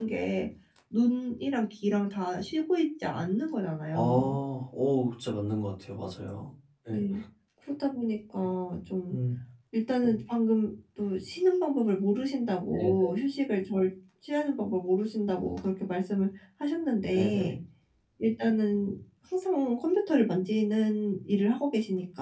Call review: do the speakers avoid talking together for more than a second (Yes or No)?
Yes